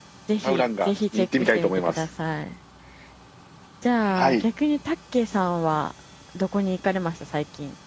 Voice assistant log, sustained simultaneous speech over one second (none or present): present